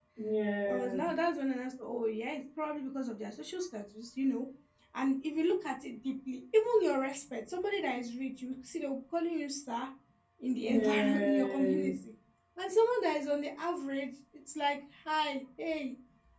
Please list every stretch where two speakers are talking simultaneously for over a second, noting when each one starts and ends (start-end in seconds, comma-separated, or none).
10.7-11.9